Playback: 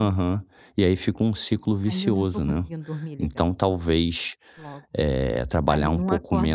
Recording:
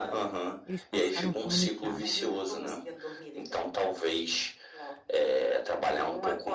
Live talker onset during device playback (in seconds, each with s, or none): 0.7 s